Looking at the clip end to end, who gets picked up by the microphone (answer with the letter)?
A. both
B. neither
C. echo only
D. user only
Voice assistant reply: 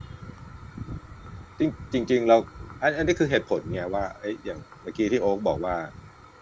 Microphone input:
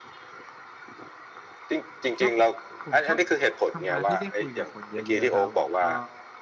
A